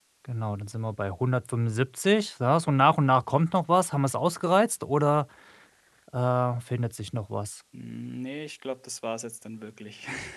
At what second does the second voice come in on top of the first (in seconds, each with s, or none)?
none